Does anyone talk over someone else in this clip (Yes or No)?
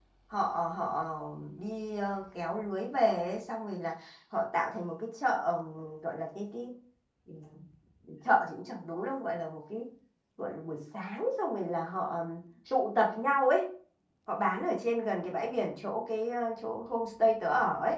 No